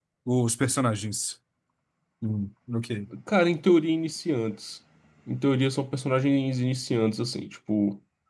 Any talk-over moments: No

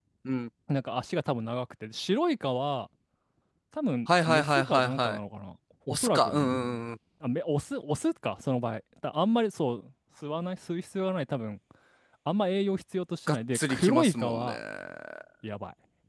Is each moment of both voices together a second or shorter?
No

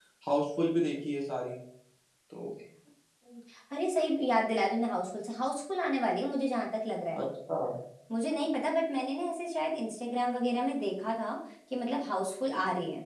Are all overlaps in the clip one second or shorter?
Yes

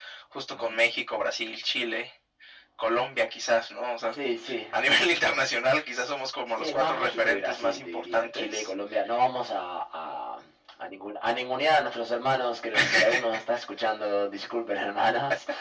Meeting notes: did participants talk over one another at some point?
Yes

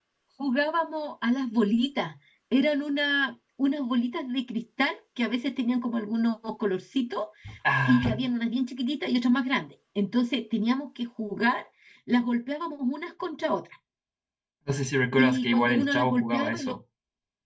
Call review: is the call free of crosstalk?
No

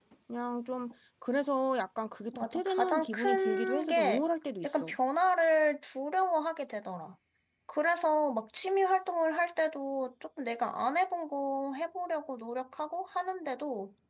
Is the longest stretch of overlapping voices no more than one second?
No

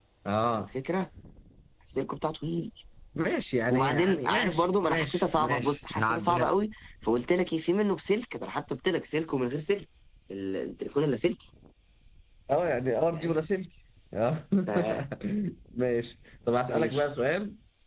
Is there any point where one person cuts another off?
Yes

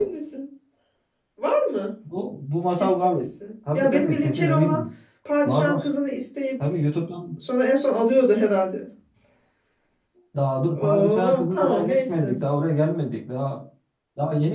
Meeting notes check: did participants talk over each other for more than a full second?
Yes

